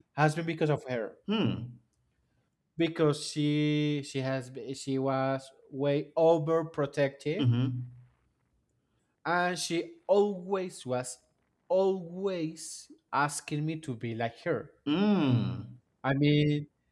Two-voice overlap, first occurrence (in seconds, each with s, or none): none